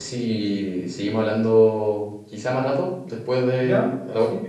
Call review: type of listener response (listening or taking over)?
taking over